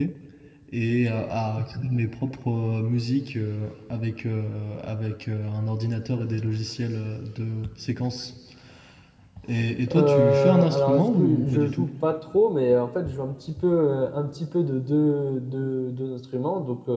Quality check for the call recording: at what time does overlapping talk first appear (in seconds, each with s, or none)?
10.0 s